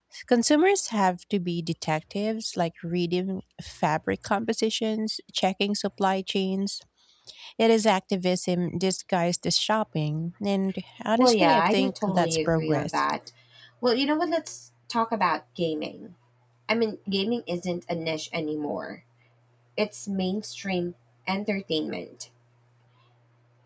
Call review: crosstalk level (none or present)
present